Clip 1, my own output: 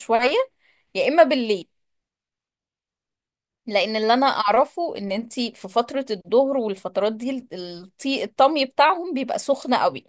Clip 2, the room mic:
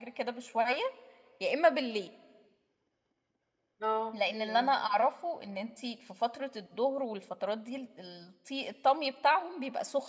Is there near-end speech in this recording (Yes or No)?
Yes